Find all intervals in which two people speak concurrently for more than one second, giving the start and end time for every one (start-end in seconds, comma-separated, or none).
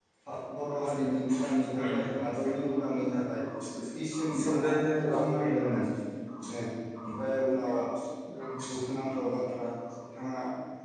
4.4-5.7